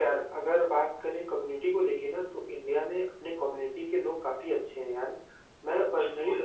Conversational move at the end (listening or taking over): listening